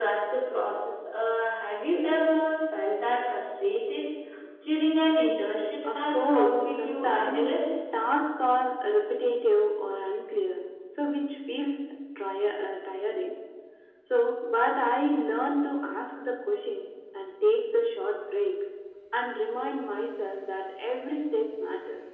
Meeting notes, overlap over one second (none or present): present